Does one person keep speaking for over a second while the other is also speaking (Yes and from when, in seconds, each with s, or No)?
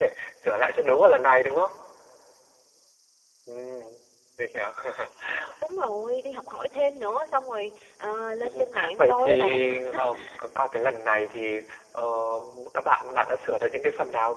Yes, from 8.4 s